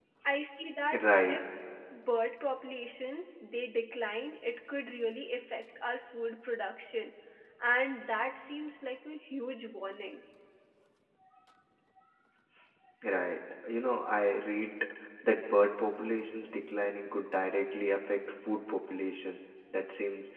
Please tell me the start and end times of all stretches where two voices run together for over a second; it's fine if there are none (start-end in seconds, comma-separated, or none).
none